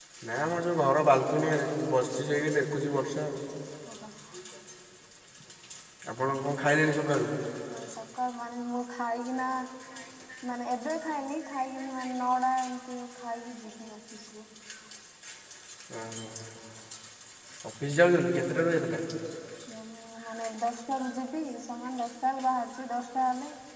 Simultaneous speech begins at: none

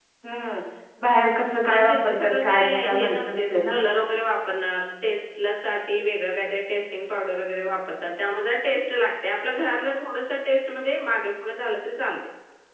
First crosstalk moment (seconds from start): 1.7 s

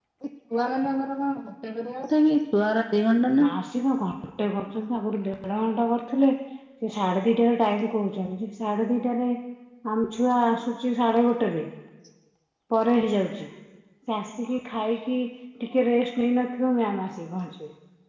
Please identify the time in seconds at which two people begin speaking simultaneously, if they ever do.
none

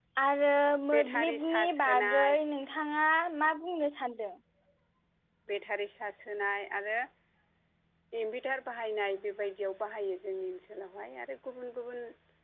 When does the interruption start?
0.9 s

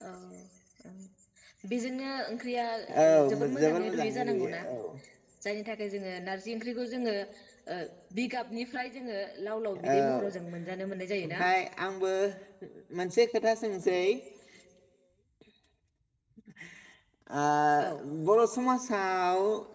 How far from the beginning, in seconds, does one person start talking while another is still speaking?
3.0 s

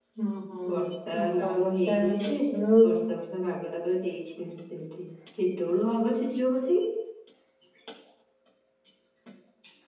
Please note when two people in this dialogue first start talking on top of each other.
0.7 s

